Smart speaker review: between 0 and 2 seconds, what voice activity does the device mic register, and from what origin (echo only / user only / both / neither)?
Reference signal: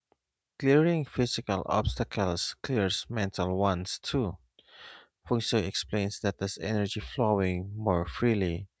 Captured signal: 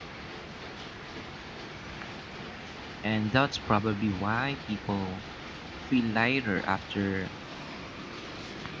neither